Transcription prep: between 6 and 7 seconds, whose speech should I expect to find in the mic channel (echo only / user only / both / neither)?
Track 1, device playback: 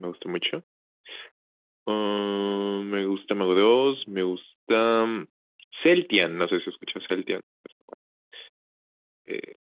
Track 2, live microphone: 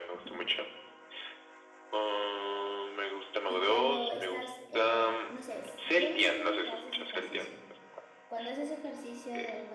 both